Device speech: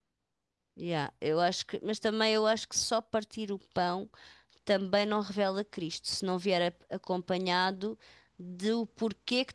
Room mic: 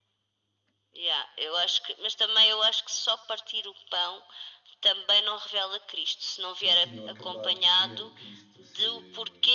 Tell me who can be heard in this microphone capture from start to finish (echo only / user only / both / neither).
both